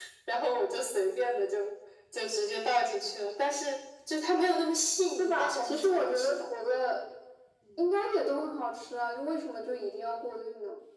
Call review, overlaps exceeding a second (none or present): present